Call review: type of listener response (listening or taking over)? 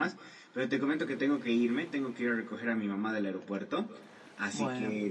listening